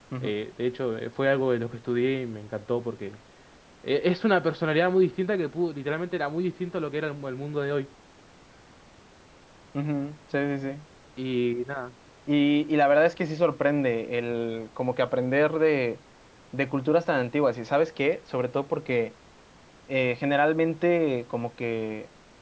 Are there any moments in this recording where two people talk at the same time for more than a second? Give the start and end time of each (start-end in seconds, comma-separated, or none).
none